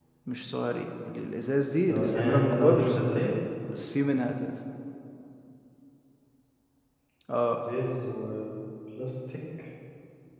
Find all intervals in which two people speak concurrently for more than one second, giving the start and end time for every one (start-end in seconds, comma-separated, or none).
1.9-3.3